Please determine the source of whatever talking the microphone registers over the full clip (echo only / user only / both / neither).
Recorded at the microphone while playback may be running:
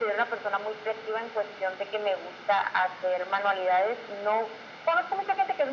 echo only